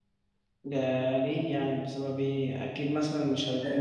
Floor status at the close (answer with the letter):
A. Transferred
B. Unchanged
B